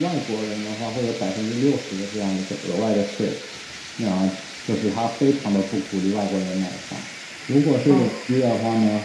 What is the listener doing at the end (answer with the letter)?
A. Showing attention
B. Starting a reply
A